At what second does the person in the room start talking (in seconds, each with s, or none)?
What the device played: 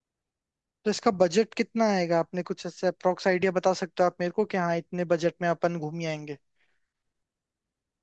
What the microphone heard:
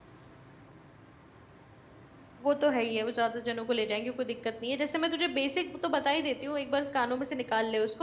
2.4 s